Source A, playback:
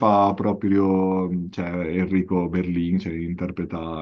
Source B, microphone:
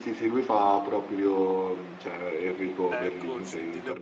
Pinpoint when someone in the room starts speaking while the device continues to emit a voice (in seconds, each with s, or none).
2.9 s